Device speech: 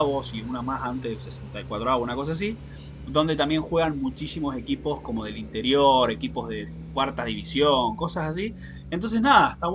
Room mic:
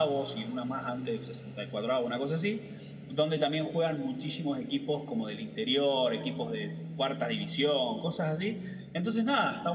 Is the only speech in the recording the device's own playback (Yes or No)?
Yes